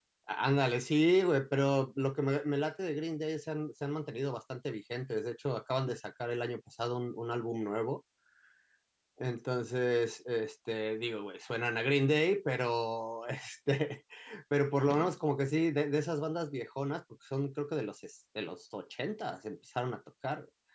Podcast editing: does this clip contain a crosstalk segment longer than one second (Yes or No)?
No